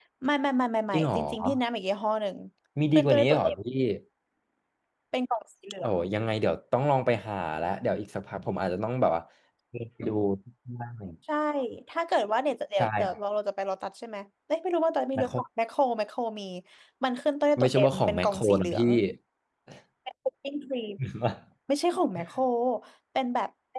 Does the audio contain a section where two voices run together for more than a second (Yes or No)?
Yes